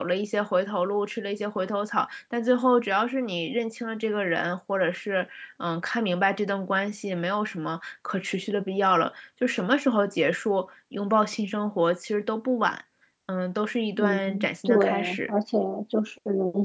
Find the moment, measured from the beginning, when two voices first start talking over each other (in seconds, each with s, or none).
13.9 s